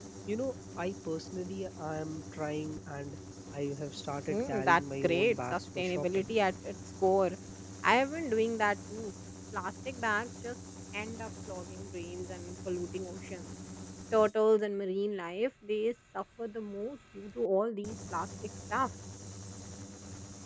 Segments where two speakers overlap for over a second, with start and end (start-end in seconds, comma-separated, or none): 4.3-6.3